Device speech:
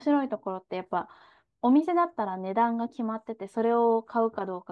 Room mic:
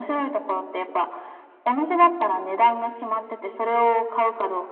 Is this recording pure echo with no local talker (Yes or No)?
Yes